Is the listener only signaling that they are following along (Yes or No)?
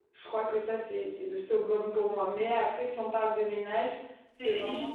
No